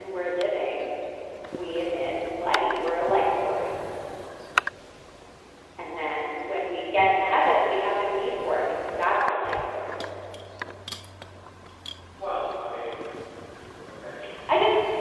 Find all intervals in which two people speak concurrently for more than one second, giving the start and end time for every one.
none

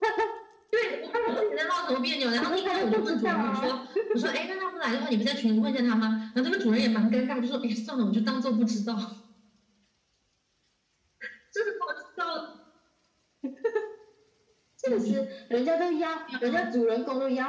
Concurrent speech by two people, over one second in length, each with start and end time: 2.4-3.7

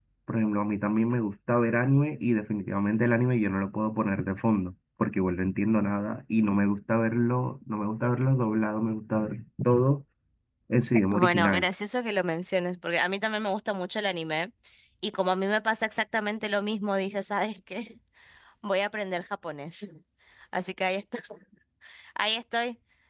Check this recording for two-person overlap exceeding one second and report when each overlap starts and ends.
none

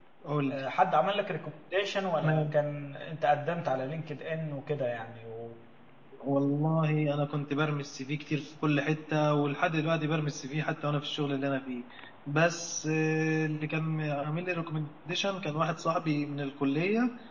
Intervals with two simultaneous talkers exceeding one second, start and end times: none

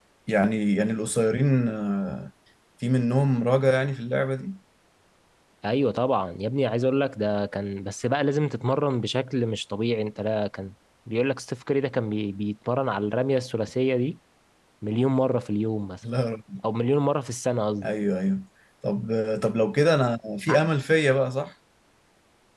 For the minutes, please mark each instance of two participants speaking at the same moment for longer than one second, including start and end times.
none

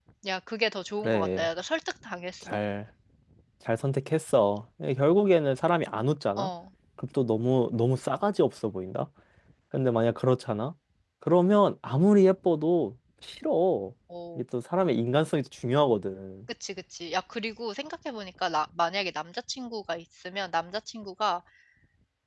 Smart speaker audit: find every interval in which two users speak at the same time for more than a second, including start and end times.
none

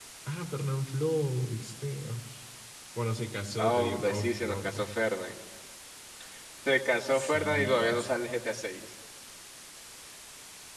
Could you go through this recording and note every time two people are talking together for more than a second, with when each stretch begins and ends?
3.6-4.8, 7.1-8.4

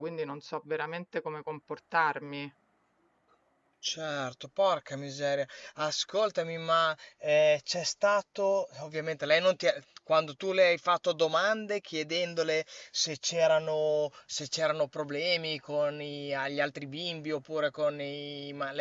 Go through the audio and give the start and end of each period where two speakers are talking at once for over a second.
none

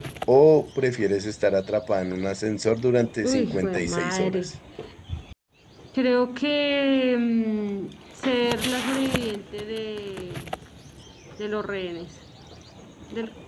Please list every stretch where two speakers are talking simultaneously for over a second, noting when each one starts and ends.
3.2-4.5

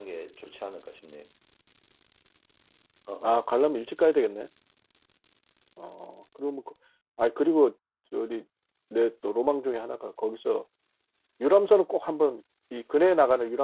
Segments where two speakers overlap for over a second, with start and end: none

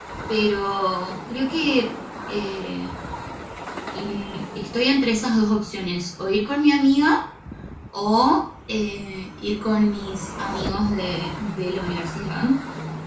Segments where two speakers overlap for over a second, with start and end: none

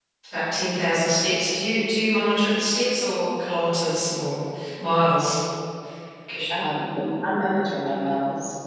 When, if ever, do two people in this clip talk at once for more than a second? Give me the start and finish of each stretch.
none

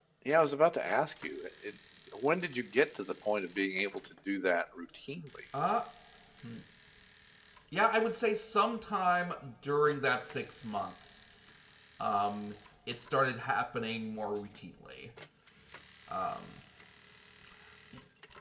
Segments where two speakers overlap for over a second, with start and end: none

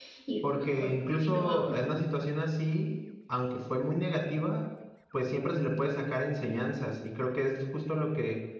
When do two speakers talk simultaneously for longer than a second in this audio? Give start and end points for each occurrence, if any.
0.5-1.7

